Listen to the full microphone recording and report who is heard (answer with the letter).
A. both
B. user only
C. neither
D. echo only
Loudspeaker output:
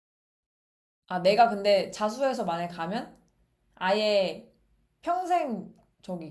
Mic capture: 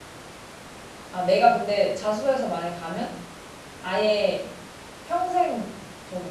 D